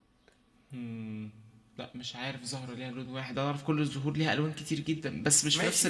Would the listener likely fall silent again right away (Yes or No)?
No